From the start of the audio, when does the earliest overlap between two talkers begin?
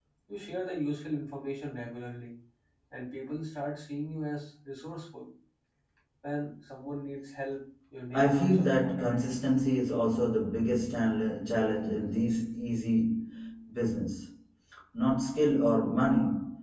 8.1 s

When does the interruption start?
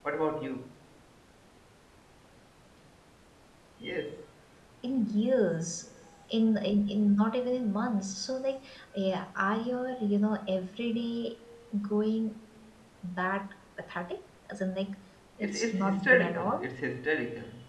15.4 s

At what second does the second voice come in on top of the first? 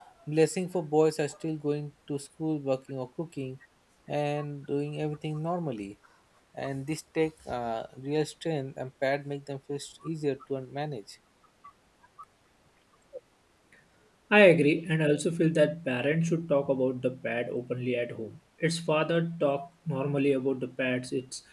none

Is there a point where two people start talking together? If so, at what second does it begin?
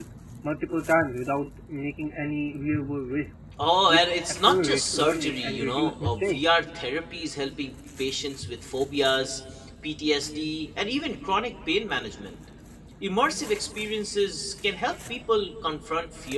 3.9 s

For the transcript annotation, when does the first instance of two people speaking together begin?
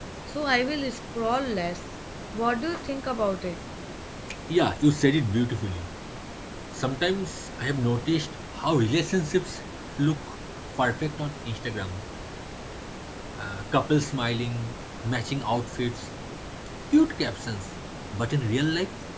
none

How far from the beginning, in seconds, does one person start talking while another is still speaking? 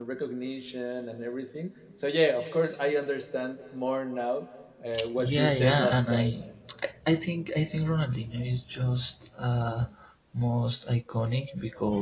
5.2 s

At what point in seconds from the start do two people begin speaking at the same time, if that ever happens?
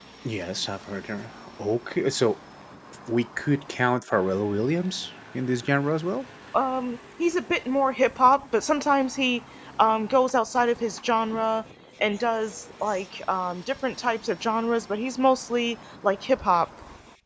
none

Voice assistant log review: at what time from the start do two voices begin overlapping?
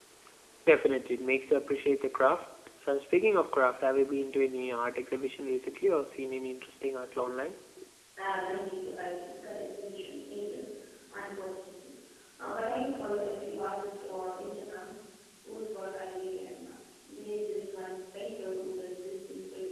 none

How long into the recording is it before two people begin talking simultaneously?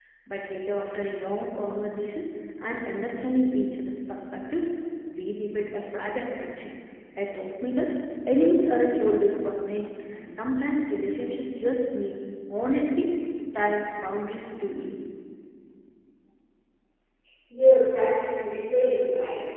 none

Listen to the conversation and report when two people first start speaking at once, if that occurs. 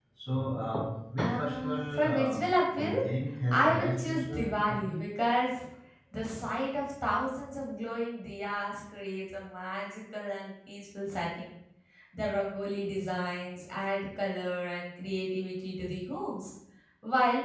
1.2 s

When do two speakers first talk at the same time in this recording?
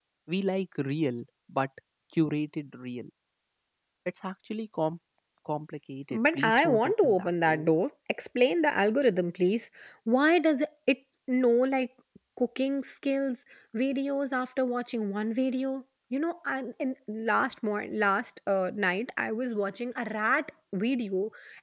6.1 s

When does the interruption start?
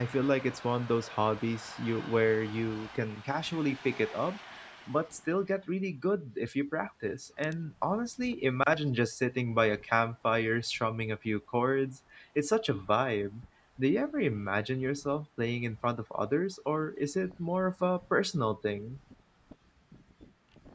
none

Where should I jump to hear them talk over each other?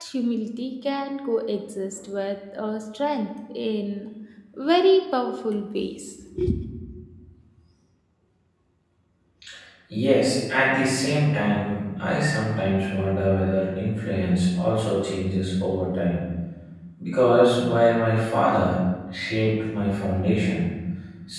none

